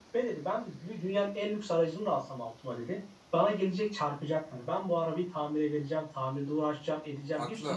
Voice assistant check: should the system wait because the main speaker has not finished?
Yes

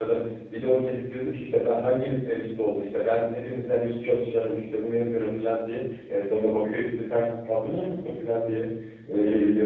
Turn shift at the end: Yes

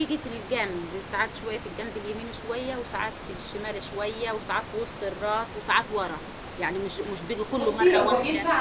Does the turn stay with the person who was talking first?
No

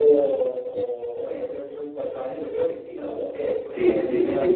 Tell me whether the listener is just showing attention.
No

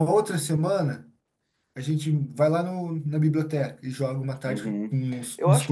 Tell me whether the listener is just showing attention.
No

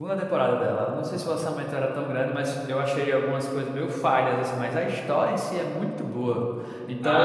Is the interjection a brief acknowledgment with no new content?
No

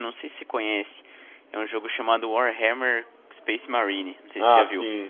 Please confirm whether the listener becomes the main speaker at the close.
Yes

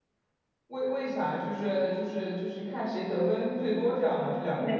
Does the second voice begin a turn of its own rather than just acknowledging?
Yes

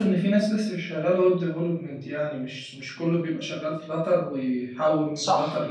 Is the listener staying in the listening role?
No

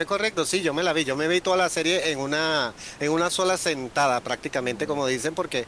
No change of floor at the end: Yes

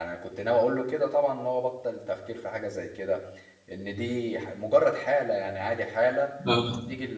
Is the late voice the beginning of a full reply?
No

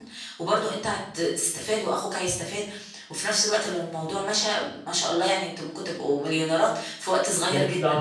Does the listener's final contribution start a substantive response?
Yes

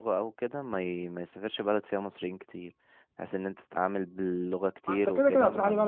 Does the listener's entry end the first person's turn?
Yes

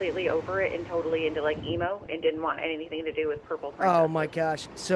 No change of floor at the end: No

